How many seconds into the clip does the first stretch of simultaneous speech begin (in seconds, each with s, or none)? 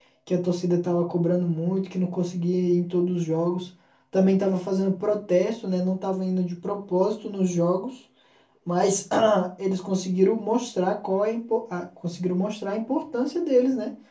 none